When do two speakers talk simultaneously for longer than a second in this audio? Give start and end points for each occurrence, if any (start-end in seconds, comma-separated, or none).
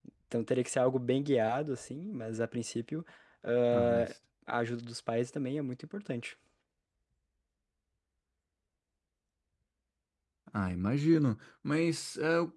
none